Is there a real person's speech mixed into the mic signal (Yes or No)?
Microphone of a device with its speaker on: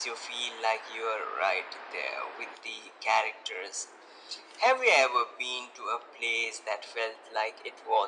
No